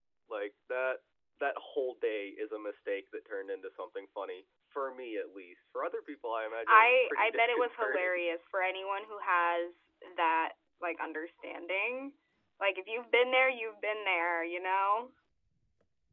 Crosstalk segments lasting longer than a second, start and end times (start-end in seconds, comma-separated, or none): 6.7-8.2